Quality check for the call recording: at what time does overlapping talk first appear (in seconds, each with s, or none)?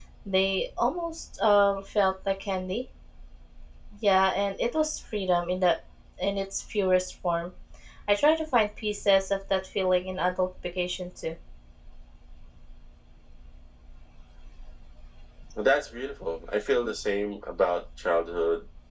none